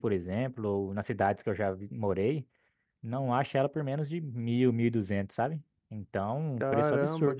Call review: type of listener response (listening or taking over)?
taking over